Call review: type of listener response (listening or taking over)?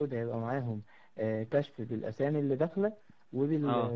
listening